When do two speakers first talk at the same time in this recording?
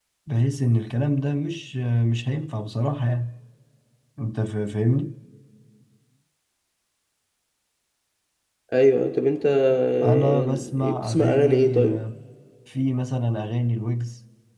10.0 s

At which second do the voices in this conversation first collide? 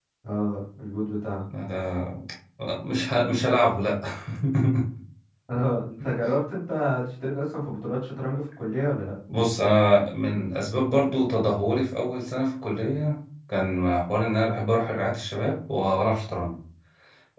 none

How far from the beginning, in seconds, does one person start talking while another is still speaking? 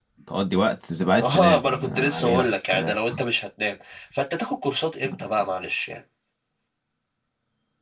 1.2 s

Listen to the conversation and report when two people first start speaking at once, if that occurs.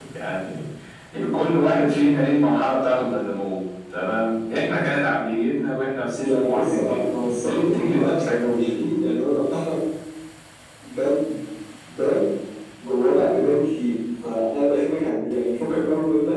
6.2 s

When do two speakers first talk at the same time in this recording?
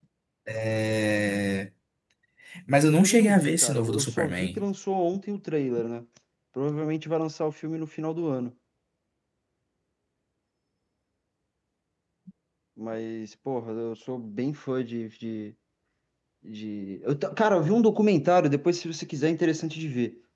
2.9 s

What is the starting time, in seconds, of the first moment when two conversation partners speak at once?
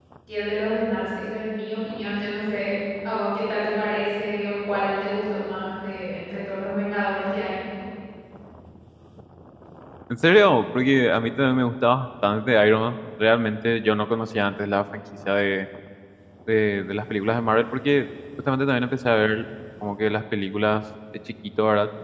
none

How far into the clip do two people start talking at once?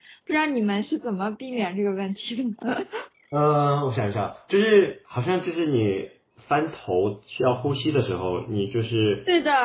none

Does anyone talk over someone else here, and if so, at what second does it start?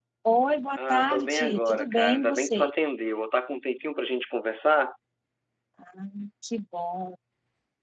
0.8 s

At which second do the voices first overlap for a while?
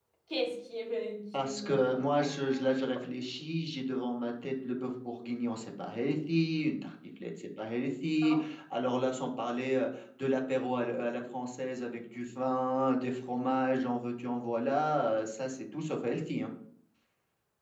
1.4 s

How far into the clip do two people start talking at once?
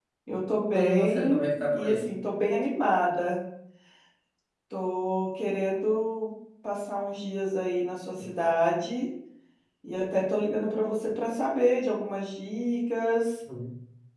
0.6 s

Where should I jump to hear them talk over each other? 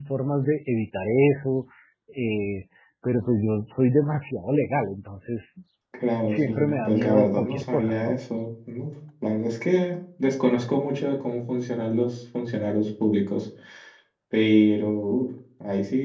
6.3 s

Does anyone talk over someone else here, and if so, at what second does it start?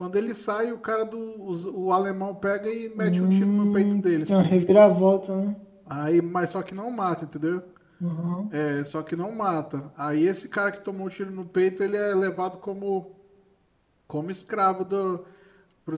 3.0 s

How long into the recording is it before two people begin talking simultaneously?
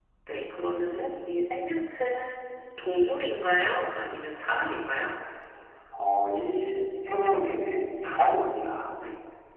none

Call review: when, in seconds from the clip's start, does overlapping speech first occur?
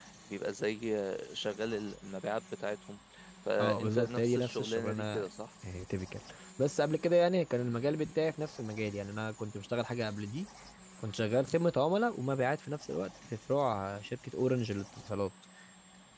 3.6 s

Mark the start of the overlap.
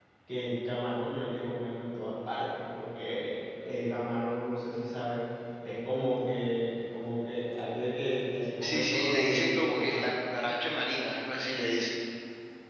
8.6 s

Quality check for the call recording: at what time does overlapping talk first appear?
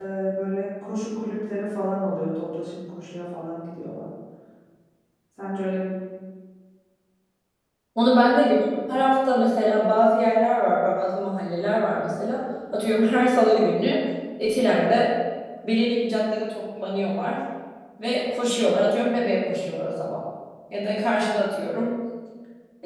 none

